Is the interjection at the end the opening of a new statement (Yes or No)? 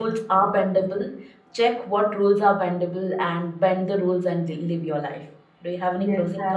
Yes